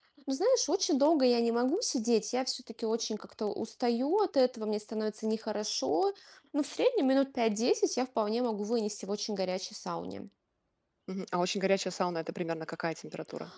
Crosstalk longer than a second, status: none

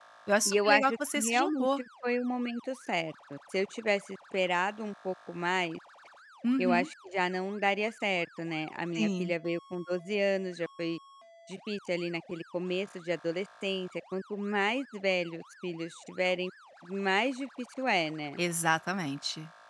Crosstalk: present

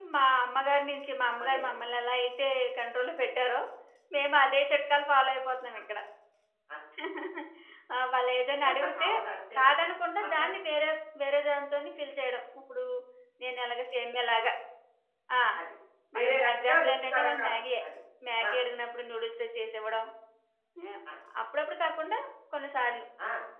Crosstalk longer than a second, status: present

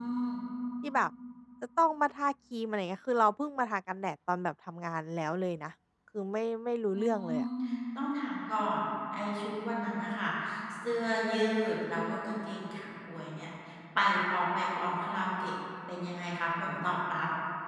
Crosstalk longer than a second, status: none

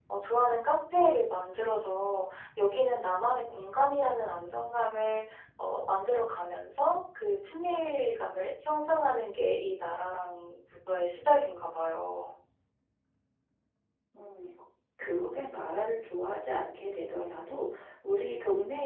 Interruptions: none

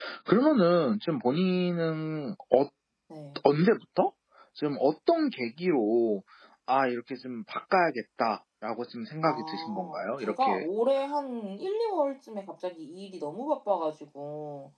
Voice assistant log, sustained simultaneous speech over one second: present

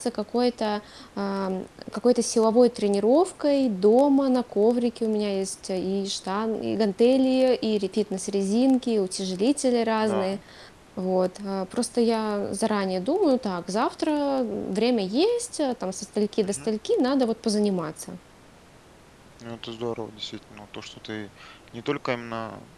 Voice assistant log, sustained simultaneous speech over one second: none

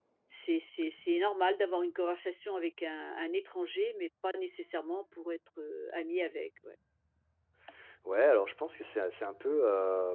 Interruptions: none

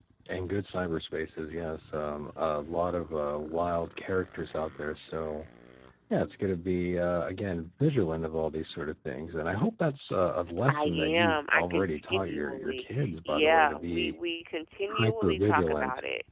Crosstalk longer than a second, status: present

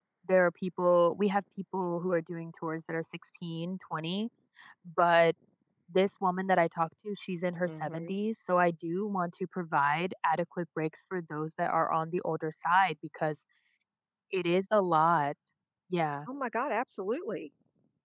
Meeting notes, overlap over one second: none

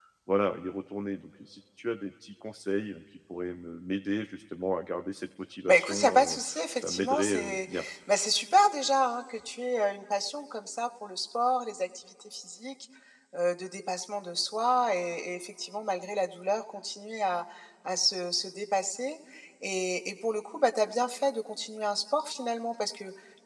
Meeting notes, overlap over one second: present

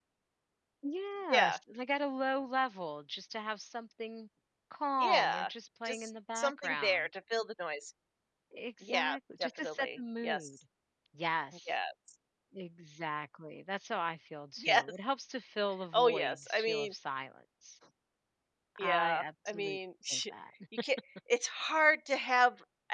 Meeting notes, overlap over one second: present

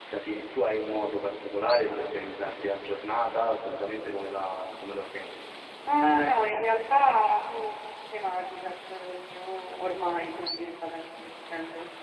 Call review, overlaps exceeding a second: none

